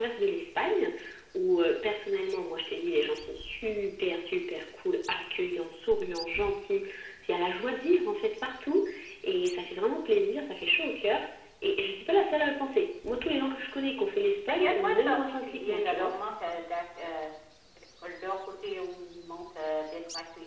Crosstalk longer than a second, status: present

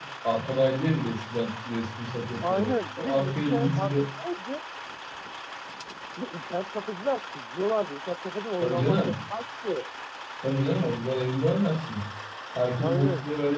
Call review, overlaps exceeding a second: present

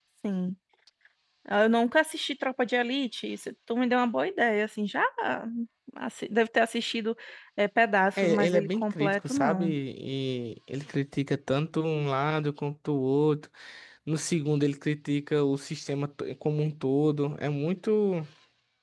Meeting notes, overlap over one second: present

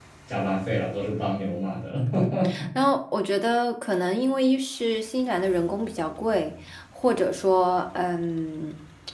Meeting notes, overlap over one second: none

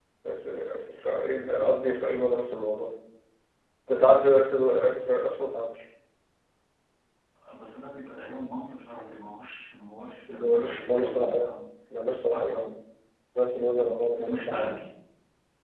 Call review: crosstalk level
present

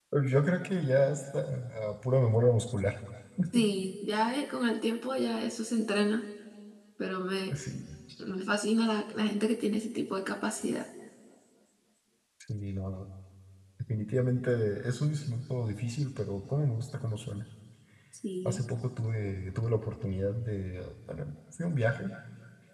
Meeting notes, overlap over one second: none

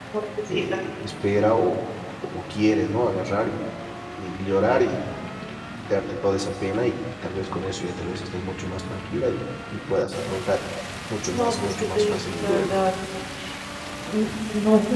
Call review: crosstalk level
present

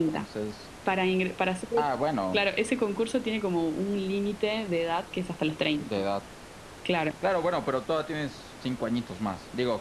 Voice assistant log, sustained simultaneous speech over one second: none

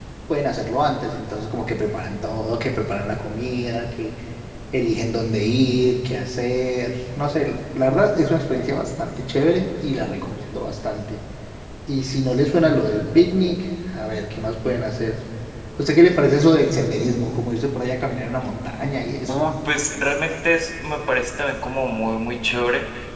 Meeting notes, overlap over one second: none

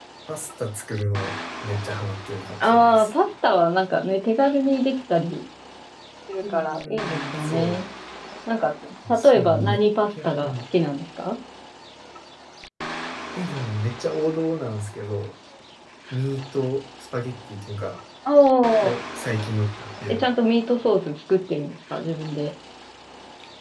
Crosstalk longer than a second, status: present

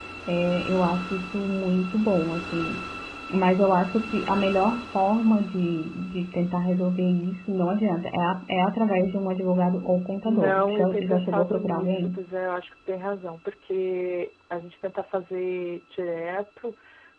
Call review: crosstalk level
present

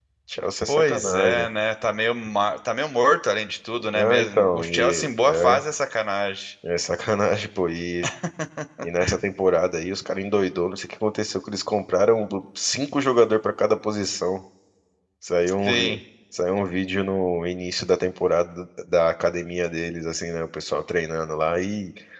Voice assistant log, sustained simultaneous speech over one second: present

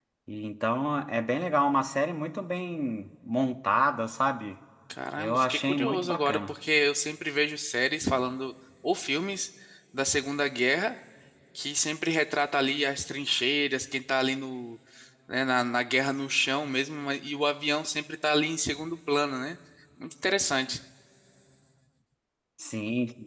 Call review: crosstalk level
present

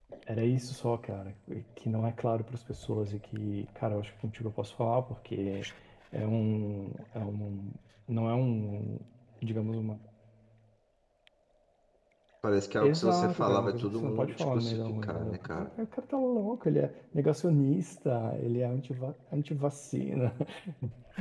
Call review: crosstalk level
present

